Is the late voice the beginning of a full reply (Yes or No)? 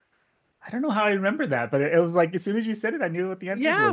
Yes